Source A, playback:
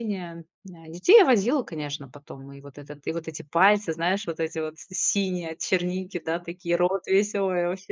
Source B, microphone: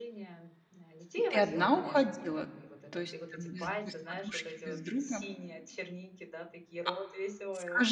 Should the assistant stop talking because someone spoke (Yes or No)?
Yes